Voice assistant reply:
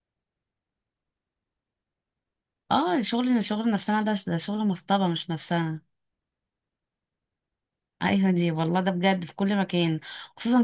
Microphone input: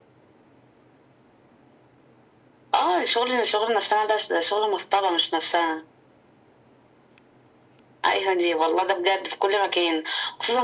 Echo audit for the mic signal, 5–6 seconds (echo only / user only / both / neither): echo only